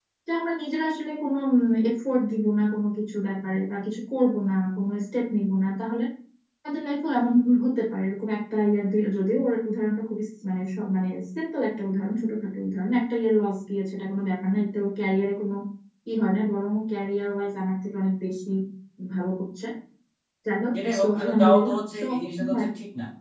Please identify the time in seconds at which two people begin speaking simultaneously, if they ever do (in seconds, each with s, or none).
20.7 s